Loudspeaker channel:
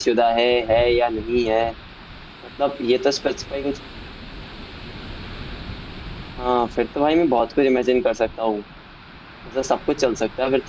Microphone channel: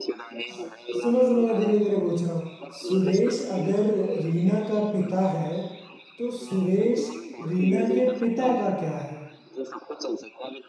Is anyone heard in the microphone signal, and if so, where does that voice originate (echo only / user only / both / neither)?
both